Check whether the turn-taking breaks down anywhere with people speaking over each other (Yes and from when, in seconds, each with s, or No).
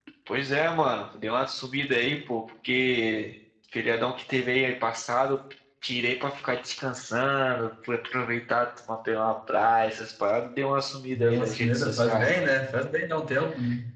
Yes, from 11.1 s